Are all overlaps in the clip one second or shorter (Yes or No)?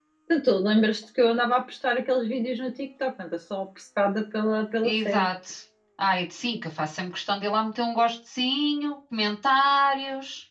Yes